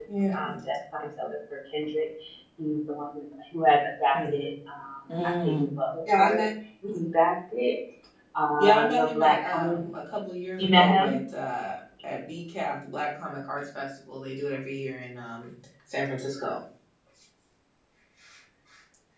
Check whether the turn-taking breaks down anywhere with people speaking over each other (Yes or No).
Yes